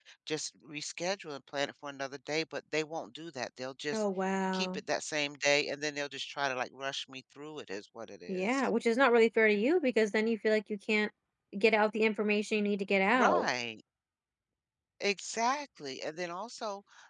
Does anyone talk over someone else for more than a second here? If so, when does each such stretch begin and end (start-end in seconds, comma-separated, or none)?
none